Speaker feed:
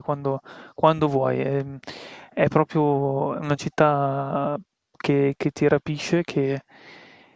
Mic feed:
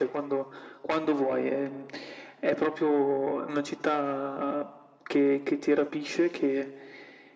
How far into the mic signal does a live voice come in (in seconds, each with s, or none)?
none